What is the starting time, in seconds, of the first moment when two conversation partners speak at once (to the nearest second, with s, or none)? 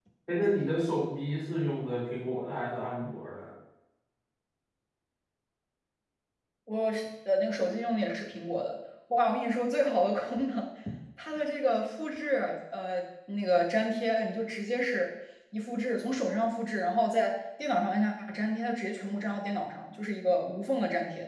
none